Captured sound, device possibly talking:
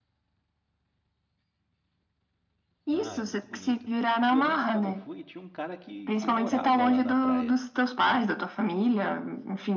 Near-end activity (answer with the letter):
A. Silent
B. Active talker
B